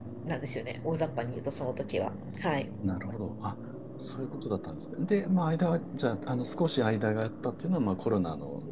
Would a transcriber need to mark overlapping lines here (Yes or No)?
No